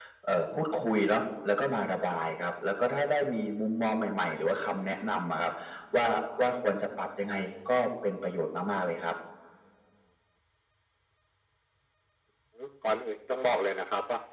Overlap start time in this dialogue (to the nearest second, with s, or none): none